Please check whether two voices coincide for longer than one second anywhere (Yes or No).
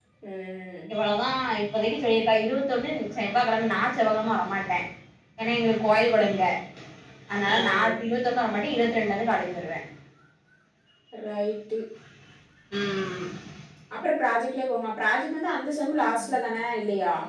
No